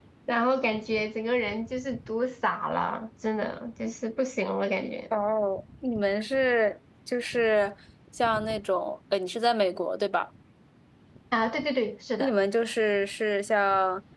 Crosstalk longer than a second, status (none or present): none